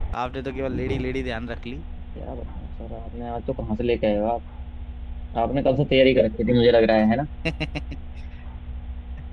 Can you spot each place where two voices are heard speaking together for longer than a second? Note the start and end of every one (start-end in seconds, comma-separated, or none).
none